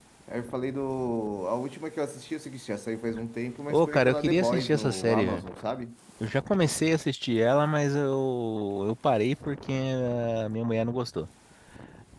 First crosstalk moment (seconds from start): 3.7 s

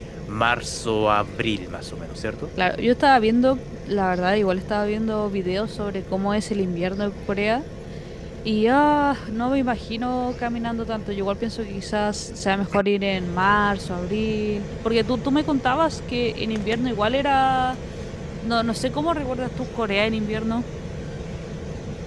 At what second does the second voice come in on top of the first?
none

